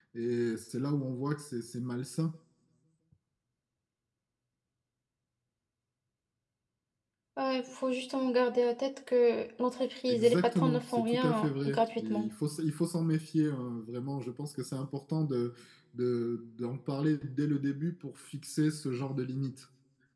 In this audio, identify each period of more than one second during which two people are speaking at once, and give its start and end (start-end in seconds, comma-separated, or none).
10.1-12.3